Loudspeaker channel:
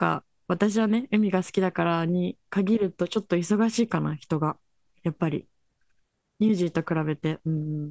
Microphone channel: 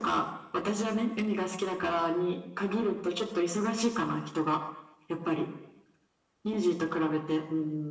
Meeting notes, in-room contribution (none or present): none